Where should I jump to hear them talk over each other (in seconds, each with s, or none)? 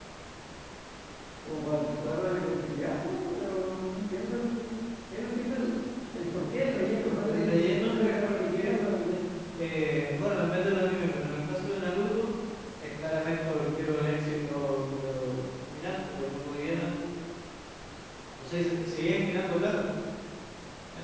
7.3 s